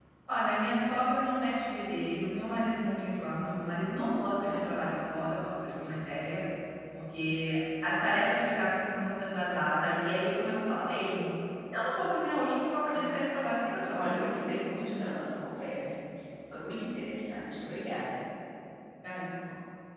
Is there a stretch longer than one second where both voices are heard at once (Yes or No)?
Yes